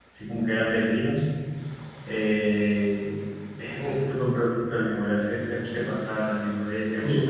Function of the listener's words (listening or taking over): listening